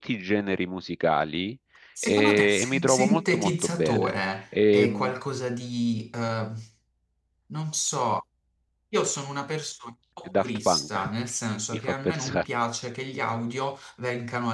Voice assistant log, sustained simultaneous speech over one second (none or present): present